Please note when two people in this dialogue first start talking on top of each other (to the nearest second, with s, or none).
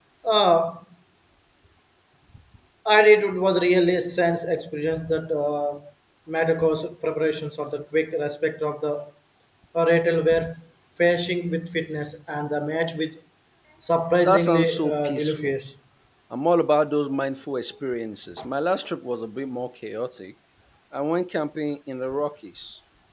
14 s